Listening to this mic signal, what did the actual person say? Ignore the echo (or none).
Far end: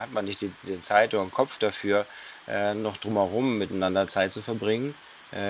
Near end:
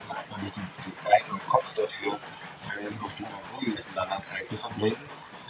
none